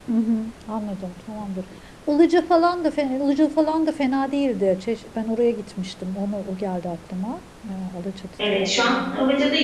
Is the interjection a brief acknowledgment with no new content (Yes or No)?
No